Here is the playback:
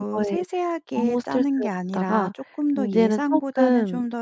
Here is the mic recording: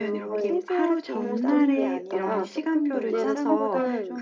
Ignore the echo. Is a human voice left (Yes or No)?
Yes